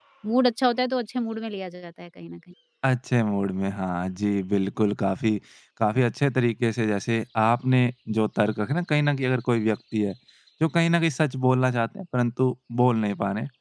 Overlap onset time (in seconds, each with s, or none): none